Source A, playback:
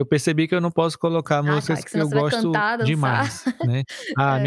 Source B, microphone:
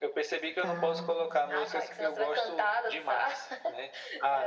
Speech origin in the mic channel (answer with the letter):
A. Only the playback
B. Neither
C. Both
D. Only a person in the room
C